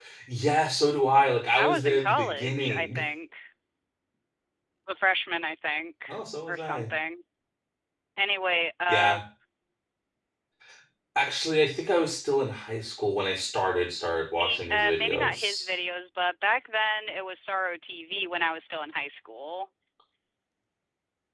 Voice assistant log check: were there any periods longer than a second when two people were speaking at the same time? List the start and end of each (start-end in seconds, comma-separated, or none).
1.6-2.9, 14.4-15.7